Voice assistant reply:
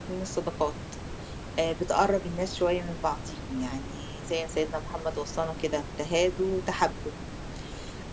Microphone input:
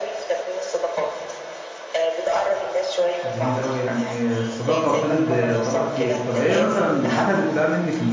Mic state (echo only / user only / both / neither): both